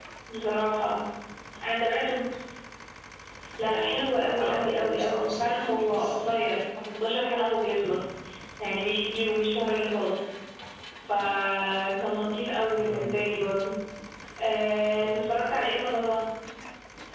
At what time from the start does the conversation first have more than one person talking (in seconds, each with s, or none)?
3.6 s